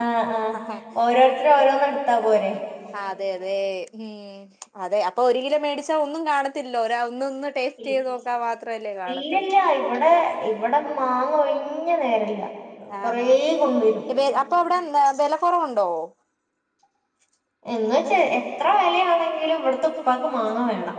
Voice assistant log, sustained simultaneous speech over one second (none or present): none